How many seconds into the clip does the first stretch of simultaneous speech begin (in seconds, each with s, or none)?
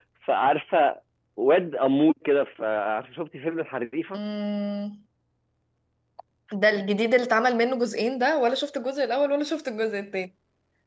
none